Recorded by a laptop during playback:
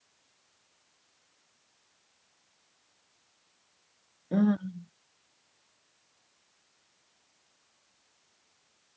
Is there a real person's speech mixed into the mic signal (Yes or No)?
Yes